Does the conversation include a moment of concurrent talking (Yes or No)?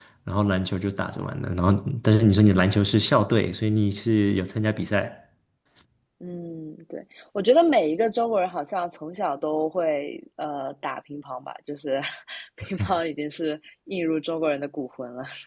No